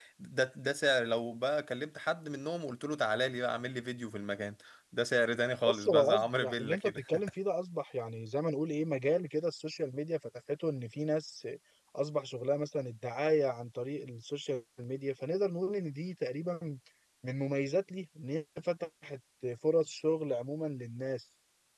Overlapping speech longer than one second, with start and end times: 5.7-7.0

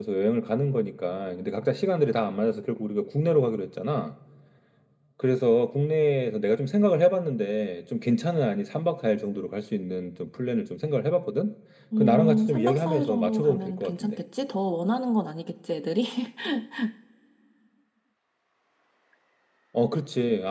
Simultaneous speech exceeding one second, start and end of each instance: 12.0-14.2

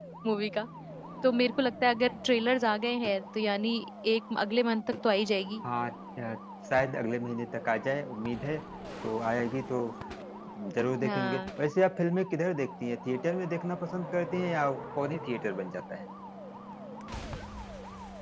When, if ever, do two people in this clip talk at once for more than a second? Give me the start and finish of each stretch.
none

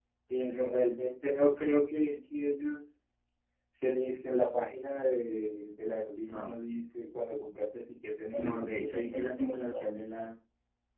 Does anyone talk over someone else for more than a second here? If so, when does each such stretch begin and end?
8.3-10.3

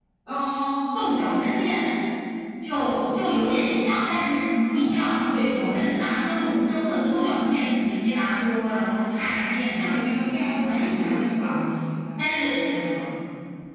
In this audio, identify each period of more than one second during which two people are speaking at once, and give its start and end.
9.8-11.5

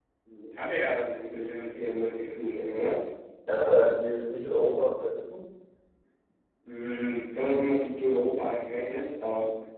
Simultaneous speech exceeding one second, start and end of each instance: none

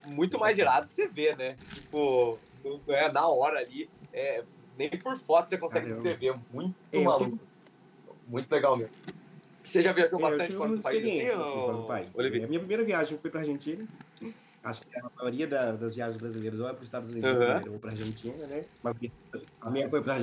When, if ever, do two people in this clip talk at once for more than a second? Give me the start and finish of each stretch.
10.2-12.4

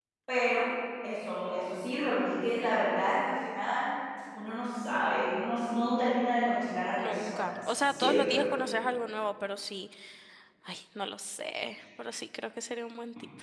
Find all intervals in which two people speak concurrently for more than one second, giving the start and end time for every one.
7.0-8.3

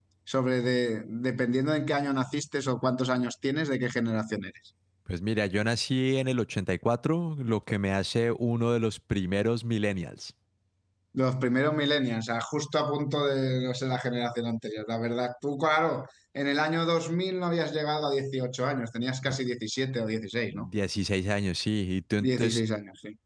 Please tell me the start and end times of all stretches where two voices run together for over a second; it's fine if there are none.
none

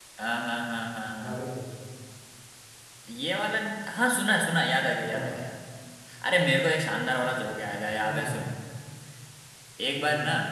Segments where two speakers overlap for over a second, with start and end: none

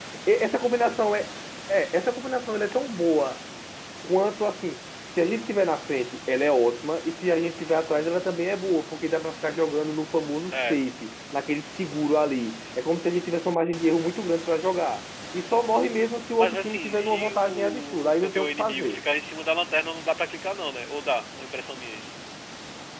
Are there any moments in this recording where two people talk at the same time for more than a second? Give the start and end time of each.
16.4-19.0

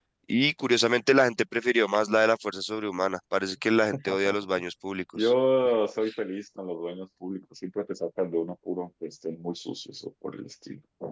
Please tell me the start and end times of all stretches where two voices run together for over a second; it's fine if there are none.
none

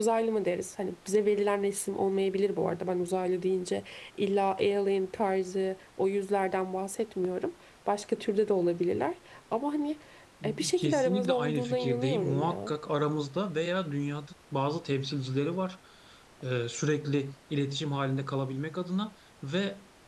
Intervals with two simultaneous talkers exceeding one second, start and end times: 10.7-12.7

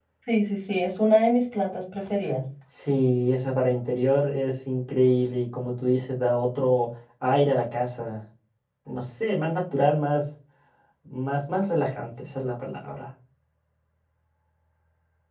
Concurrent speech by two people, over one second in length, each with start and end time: none

